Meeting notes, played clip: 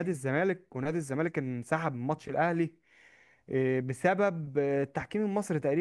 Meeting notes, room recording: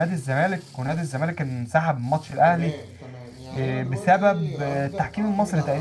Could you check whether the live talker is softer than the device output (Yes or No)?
Yes